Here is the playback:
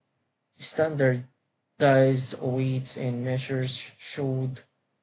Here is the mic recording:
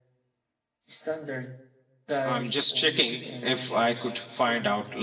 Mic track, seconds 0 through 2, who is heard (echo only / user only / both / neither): echo only